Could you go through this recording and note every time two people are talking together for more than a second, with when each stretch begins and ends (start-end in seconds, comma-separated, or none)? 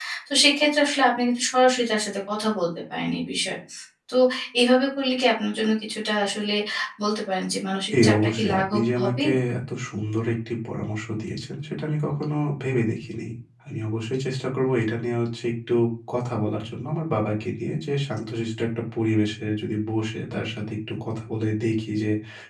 8.0-9.2